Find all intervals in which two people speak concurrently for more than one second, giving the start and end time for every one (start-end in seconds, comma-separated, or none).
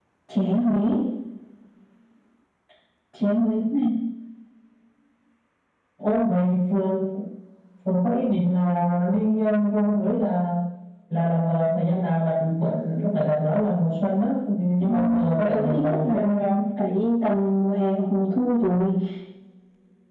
14.8-16.6